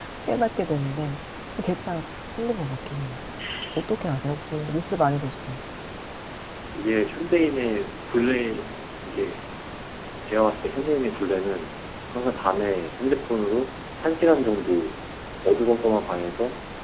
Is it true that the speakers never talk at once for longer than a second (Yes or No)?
Yes